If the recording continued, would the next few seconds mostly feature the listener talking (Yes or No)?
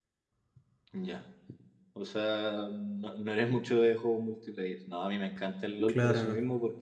No